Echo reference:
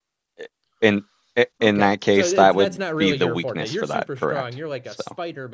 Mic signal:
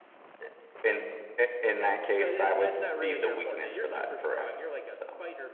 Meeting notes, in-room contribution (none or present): present